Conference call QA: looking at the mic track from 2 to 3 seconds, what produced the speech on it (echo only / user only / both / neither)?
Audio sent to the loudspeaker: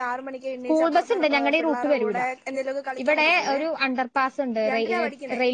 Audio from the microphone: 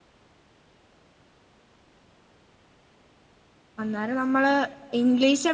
neither